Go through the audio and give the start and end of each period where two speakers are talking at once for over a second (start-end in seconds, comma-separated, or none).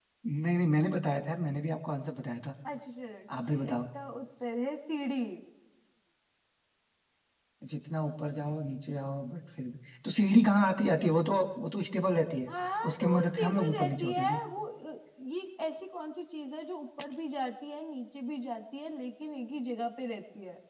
12.9-14.4